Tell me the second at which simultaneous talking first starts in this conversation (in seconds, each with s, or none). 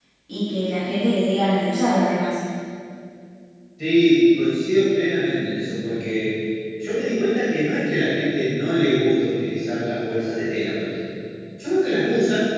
none